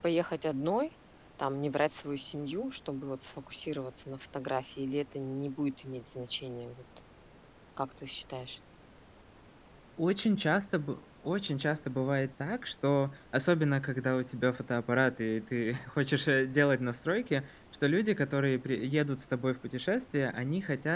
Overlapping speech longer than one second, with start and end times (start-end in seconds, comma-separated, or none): none